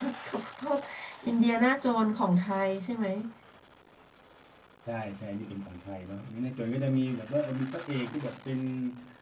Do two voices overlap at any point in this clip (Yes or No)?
No